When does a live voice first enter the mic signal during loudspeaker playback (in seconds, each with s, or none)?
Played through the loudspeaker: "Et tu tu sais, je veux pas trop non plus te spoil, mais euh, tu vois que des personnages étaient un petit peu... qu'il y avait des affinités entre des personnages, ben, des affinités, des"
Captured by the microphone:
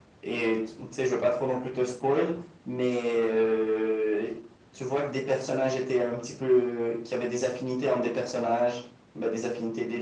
none